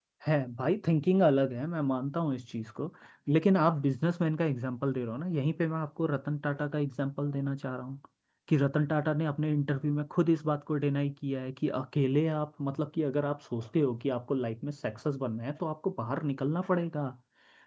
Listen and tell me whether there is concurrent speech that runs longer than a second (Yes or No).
No